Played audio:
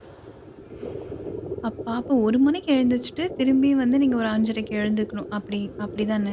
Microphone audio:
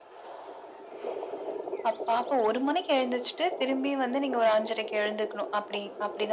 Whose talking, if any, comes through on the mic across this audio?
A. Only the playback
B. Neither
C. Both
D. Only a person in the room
A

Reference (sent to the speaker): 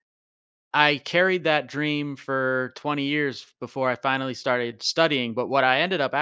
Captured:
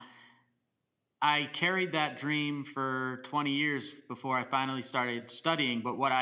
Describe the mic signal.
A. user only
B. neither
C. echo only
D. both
C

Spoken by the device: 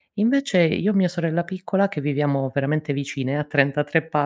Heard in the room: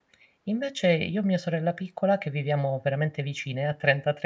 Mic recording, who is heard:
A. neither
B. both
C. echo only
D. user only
C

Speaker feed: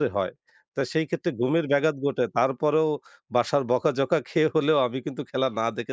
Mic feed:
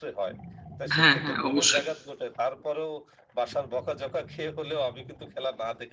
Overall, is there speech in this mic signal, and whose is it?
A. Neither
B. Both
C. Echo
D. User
B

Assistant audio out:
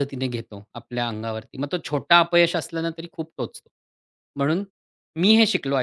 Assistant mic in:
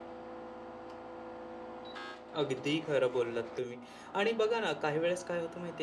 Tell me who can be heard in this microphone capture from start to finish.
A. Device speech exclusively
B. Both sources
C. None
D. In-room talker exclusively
D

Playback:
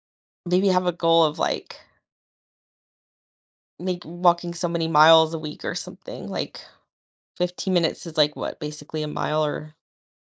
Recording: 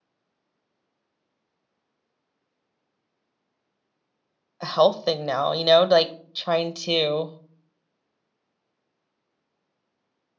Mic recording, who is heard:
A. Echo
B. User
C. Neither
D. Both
B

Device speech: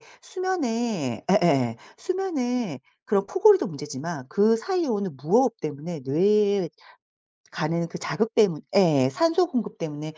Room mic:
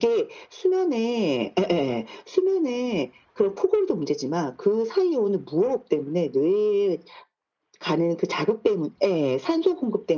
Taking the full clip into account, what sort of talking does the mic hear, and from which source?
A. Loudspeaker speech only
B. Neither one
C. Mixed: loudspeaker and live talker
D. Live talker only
A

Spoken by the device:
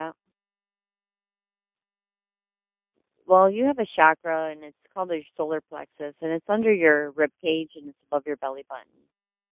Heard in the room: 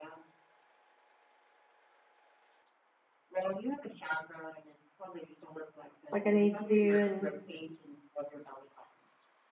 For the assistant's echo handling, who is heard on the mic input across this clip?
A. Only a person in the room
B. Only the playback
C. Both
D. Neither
C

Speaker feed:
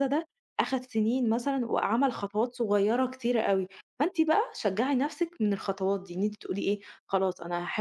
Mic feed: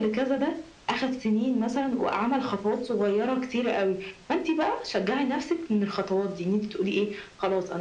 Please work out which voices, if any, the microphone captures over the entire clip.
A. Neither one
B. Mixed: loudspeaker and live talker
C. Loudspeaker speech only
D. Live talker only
C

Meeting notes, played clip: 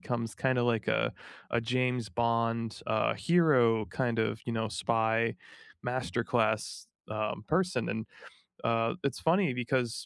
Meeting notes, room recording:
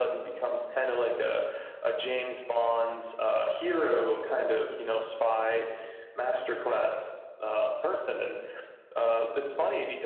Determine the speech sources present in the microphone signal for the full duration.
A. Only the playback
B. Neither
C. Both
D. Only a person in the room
A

